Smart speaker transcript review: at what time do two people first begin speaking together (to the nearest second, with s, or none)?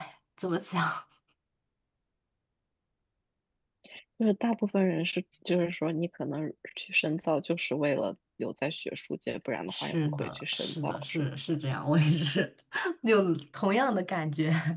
10 s